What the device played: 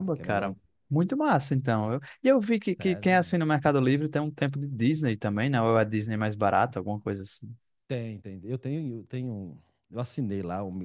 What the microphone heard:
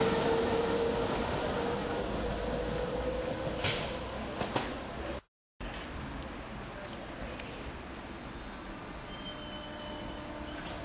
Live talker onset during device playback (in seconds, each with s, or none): none